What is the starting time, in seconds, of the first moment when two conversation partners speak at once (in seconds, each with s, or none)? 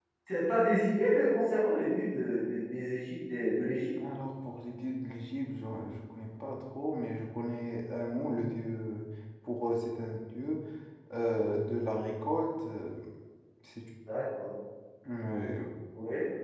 none